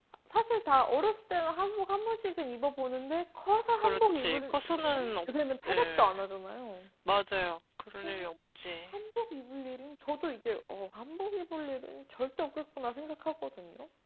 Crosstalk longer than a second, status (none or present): present